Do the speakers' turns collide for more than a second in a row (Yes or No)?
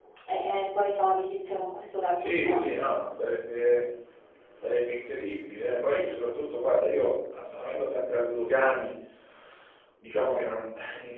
No